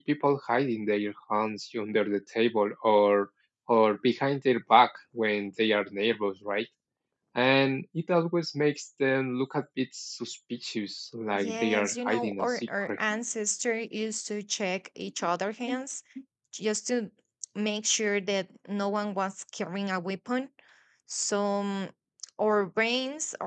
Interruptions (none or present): present